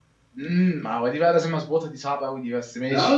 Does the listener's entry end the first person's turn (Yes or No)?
Yes